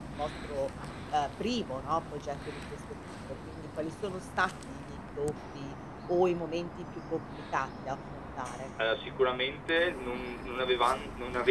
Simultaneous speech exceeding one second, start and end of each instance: none

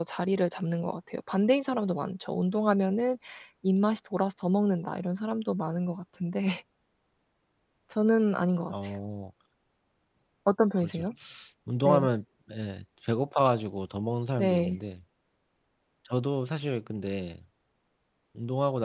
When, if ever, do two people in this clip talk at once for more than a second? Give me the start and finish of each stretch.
none

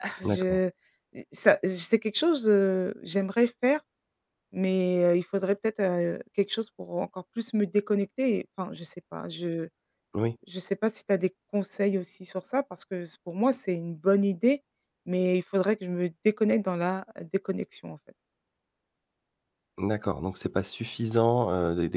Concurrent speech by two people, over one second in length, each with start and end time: none

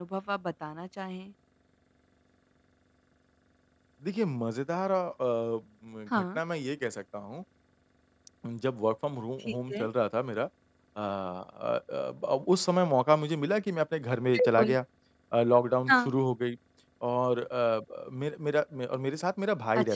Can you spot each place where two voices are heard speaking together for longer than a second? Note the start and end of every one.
none

